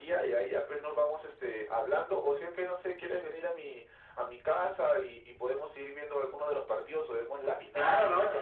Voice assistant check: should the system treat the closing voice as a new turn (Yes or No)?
Yes